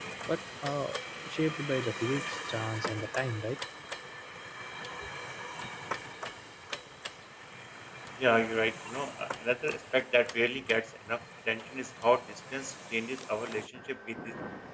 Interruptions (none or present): none